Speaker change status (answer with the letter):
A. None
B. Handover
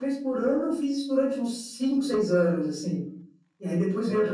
A